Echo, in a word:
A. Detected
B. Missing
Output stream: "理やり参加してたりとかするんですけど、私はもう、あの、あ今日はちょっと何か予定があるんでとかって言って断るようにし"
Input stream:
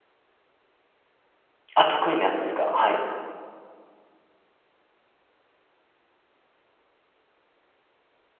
B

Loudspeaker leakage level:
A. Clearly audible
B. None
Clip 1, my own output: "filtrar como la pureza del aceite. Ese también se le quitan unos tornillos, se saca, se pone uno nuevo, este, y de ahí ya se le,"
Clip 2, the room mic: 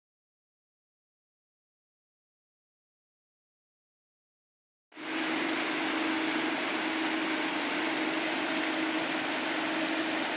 B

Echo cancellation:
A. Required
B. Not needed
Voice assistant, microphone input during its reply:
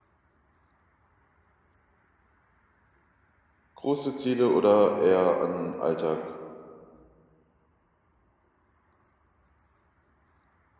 B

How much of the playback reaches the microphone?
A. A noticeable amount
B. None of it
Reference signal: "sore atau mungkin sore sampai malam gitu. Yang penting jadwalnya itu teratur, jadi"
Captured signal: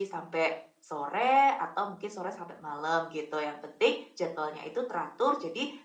A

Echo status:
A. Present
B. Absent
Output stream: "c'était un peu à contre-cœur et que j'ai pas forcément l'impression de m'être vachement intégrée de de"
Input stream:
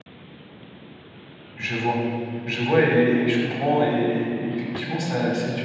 B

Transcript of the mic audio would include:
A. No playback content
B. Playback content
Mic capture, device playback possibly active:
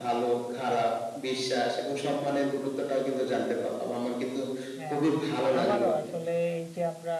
B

